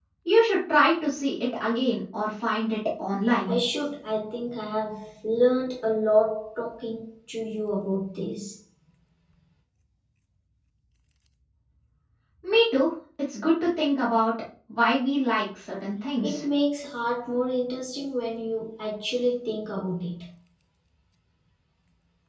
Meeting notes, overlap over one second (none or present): none